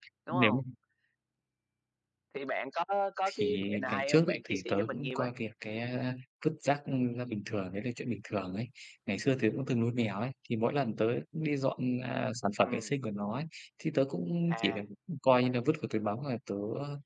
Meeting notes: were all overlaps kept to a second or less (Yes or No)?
No